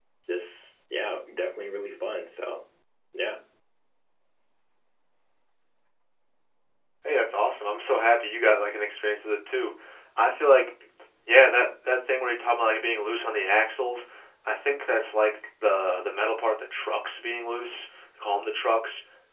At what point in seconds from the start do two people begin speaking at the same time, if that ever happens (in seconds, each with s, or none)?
none